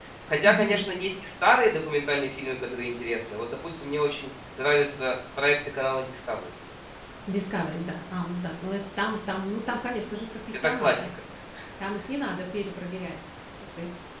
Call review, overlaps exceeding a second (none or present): none